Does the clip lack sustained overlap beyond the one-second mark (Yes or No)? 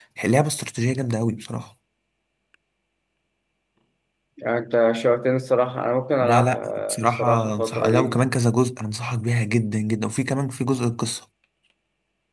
No